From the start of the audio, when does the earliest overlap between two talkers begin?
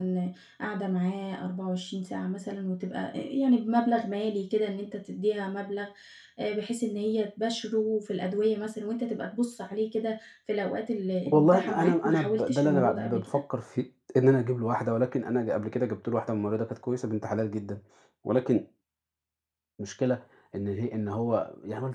11.3 s

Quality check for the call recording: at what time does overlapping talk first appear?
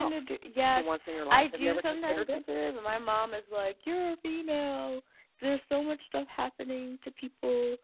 0.8 s

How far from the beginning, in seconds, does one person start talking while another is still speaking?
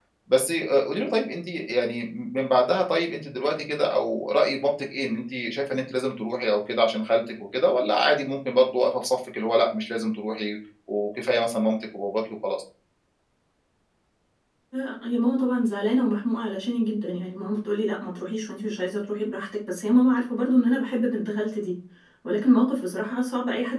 none

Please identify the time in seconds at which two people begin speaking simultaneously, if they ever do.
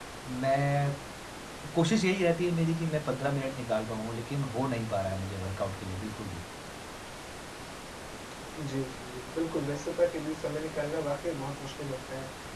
none

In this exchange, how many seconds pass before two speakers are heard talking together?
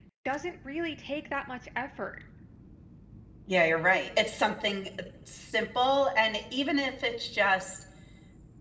none

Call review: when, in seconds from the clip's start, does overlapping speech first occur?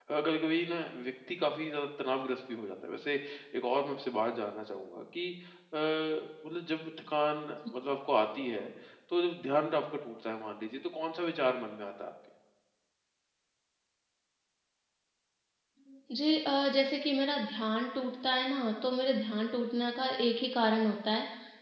none

